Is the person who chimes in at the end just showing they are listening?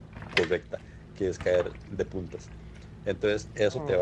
Yes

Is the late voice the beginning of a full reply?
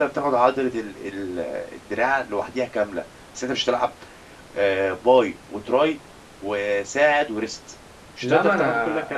Yes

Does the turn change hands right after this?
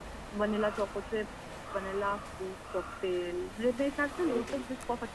No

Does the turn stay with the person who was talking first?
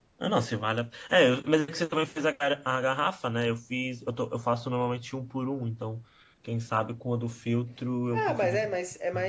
No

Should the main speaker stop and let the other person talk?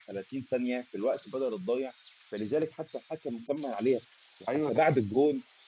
No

